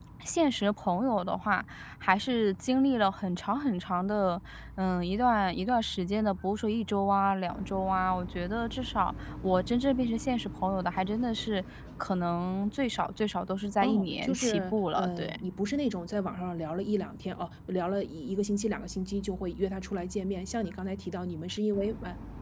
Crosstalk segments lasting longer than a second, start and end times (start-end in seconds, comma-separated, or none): 13.8-15.4